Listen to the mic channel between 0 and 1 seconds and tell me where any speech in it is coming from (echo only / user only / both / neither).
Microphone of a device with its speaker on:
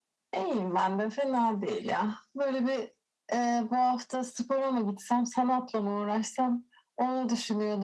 echo only